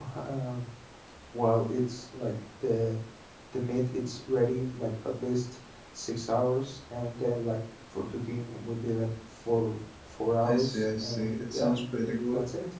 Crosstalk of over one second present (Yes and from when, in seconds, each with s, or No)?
Yes, from 10.4 s